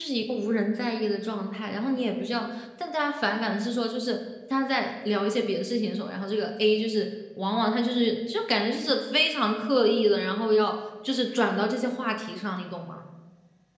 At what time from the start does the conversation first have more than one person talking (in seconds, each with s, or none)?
none